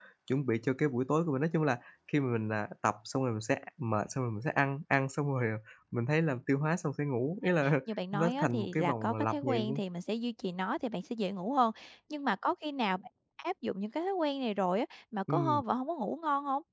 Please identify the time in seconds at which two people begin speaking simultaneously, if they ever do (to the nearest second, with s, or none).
8 s